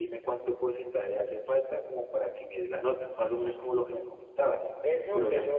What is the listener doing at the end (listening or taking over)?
taking over